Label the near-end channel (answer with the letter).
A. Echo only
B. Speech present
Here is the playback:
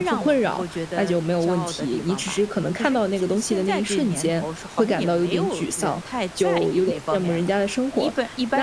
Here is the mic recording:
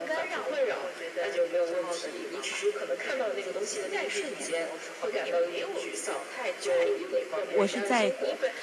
B